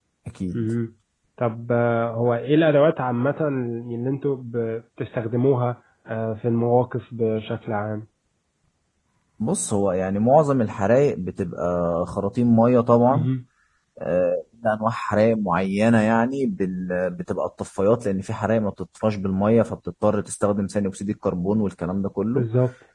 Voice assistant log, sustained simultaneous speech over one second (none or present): none